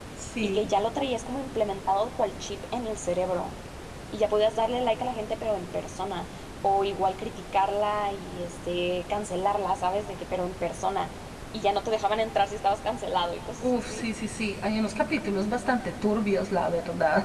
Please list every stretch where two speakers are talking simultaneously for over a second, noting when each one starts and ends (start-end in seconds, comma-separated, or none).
none